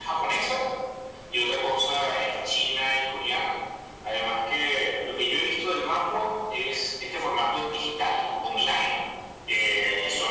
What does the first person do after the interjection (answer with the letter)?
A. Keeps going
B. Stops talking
A